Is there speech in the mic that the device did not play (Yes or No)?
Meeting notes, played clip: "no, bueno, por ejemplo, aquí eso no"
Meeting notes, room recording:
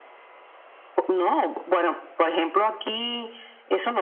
No